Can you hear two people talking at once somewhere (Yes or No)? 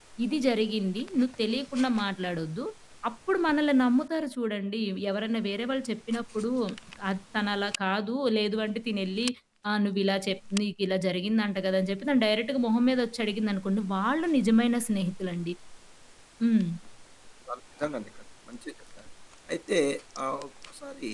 No